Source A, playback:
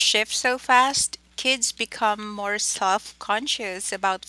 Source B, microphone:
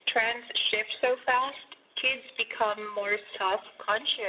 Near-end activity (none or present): none